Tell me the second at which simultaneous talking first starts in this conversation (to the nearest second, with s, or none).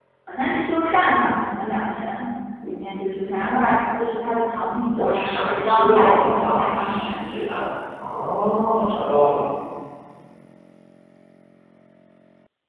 5 s